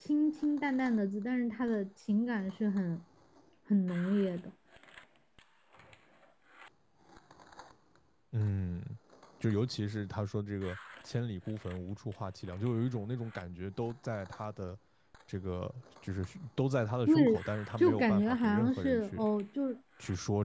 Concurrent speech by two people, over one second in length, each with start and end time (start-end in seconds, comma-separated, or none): 17.8-19.2